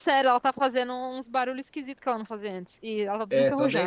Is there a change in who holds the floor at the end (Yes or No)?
Yes